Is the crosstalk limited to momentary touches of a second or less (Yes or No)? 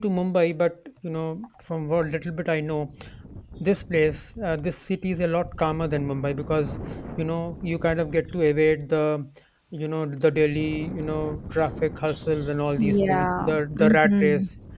No